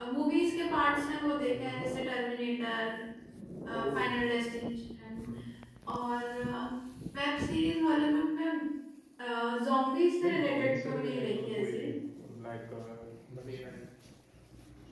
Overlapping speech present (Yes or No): Yes